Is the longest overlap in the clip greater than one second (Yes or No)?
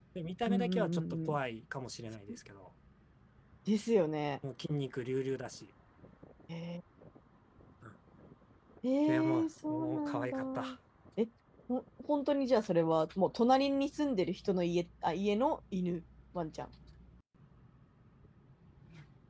Yes